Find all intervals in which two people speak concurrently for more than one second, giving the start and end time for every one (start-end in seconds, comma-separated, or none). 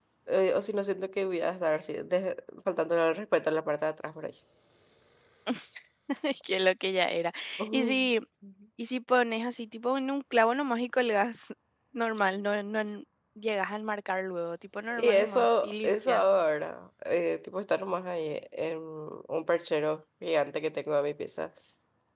14.9-16.2